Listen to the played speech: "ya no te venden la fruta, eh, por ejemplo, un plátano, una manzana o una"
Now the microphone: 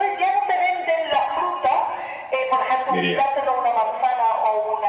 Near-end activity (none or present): present